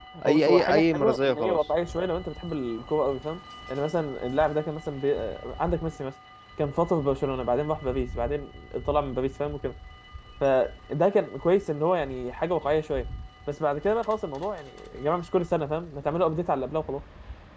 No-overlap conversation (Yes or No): No